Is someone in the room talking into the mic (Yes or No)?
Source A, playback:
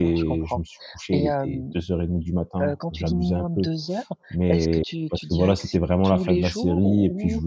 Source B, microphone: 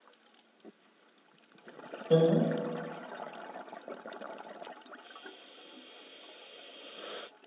Yes